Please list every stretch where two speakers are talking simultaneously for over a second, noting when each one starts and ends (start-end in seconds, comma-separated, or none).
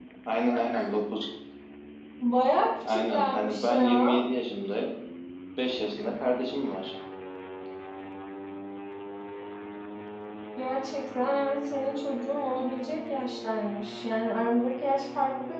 2.9-4.1